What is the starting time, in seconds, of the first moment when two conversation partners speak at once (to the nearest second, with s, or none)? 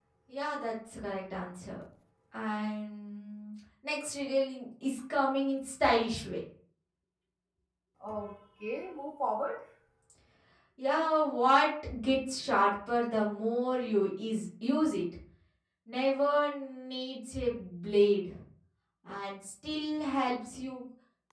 none